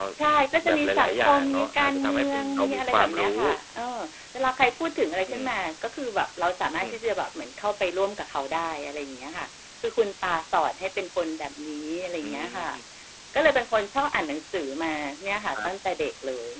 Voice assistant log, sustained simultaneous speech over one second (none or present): present